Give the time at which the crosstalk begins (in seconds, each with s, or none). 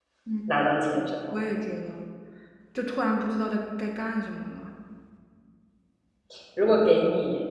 none